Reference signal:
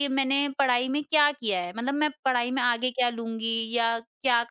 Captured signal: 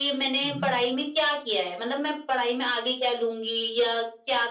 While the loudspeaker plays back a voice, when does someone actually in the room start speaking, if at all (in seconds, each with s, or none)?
0.4 s